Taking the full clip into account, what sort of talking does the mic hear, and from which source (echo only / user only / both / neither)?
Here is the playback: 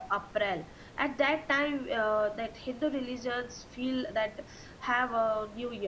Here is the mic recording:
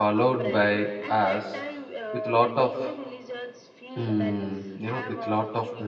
both